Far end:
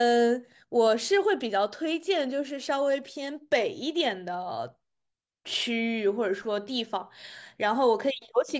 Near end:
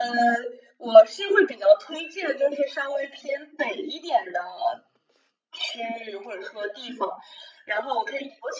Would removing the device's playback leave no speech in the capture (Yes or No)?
Yes